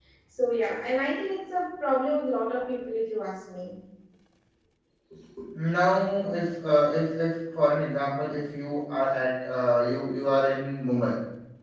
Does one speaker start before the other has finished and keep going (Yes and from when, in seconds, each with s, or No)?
No